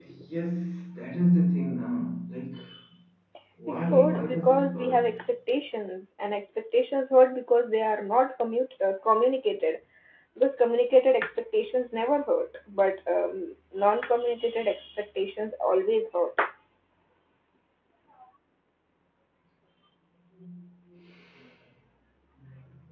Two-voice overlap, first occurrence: 4 s

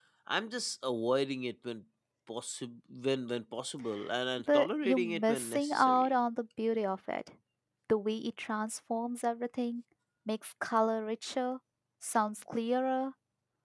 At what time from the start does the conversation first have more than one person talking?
4 s

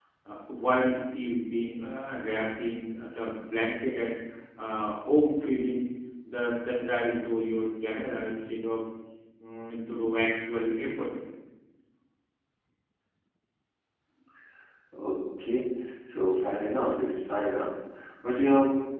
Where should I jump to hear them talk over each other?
none

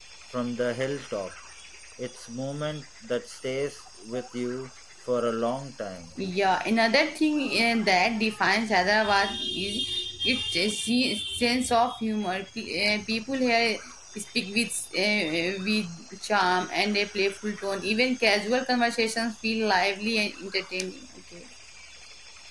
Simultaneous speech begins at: none

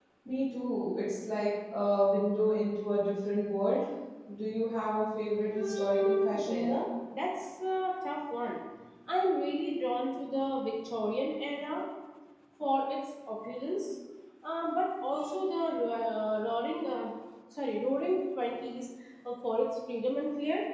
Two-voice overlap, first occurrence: 5 s

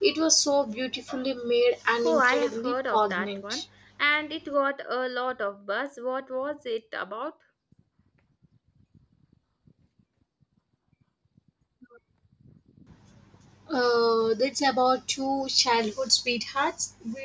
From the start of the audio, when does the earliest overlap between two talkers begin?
2 s

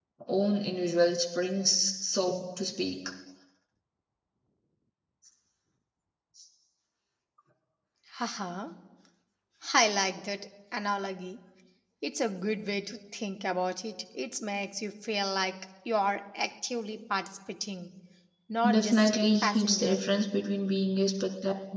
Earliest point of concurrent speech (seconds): 19 s

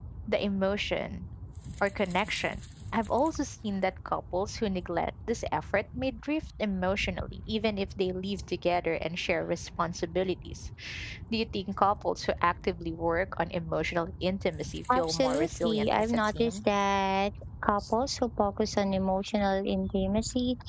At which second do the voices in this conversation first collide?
15 s

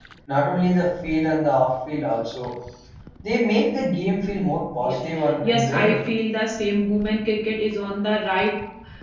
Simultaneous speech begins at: 5 s

